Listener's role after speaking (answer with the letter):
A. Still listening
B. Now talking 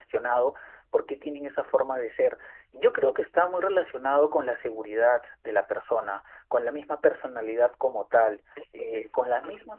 A